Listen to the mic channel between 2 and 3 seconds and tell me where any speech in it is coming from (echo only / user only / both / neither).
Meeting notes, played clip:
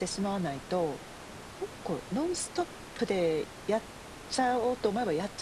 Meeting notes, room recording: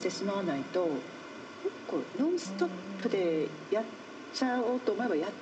both